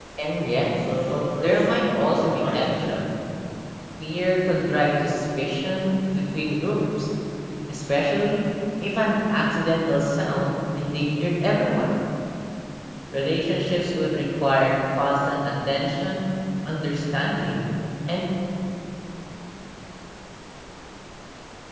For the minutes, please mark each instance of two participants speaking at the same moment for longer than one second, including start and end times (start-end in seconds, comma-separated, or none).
1.4-2.8